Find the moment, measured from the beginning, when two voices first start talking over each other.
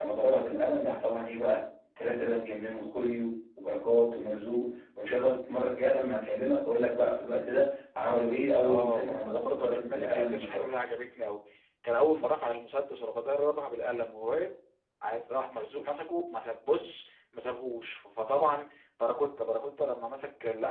9 s

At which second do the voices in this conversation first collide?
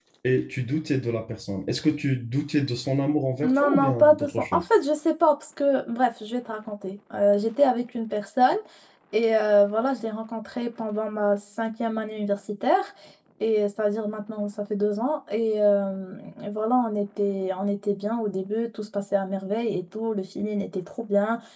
3 s

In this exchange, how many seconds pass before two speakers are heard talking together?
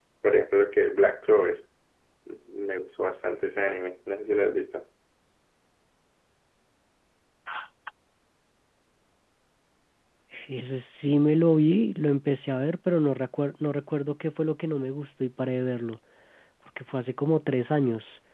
none

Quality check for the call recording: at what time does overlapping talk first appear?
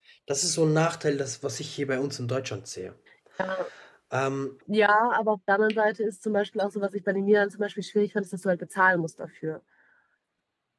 none

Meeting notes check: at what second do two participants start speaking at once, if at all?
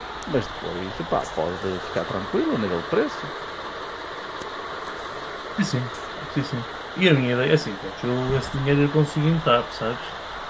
none

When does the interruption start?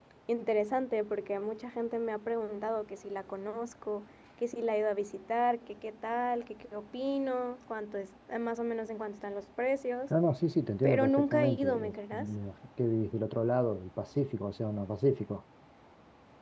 11 s

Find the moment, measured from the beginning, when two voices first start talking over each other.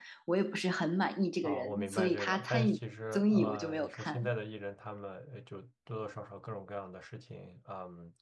1 s

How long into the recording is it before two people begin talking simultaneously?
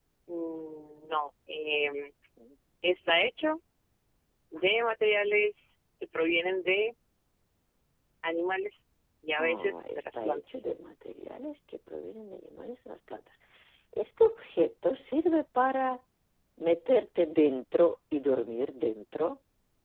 9 s

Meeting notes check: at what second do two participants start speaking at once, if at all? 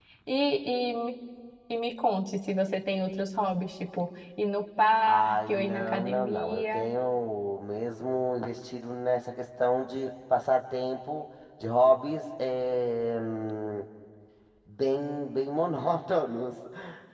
5 s

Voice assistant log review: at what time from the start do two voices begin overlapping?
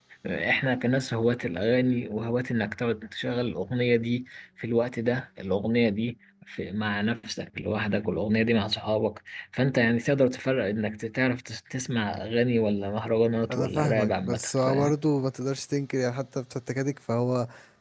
13 s

